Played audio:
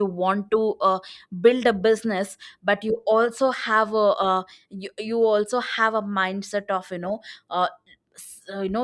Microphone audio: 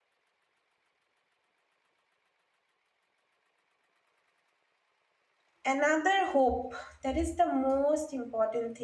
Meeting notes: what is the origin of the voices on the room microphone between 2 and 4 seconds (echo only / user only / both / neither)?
neither